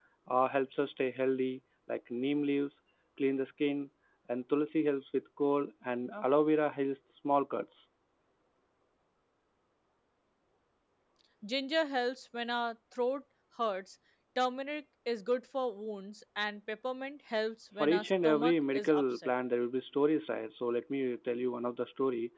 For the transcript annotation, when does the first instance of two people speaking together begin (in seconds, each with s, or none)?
17.8 s